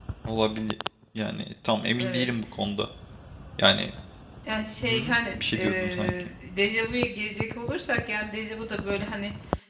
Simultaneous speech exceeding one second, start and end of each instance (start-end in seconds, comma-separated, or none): 4.8-6.1